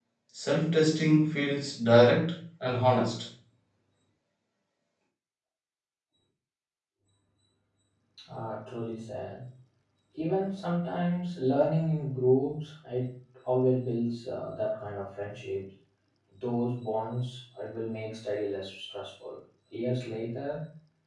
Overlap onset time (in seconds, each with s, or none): none